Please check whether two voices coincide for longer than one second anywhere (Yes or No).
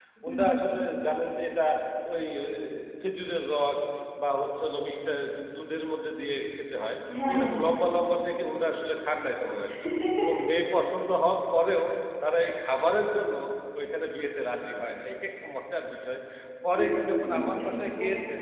Yes